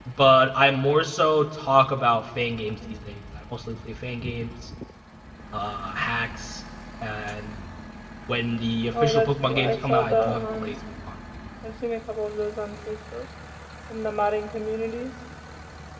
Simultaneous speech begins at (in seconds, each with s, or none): 9.0 s